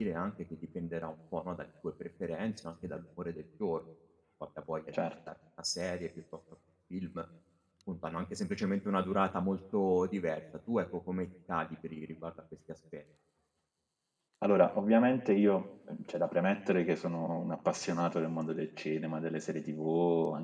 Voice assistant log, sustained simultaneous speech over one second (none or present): none